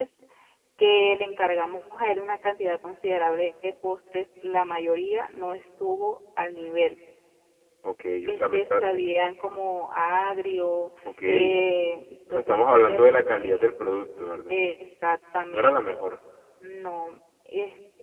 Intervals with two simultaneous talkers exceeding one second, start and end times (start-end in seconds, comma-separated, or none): 12.3-13.7